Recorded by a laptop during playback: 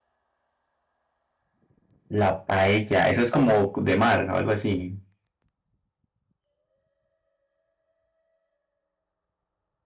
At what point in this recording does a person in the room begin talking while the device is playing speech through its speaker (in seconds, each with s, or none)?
2.1 s